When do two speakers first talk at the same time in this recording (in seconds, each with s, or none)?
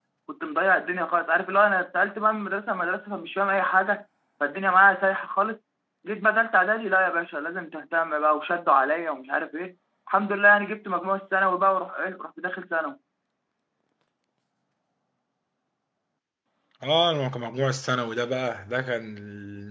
none